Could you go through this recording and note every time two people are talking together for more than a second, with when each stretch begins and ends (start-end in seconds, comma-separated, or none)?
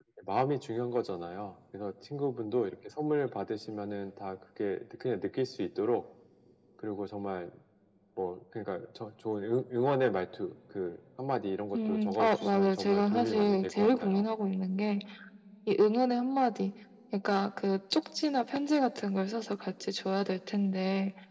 11.7-14.3